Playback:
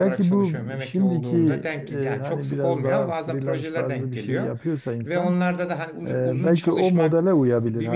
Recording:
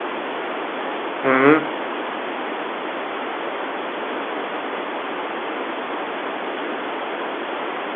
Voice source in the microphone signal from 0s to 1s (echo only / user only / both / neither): neither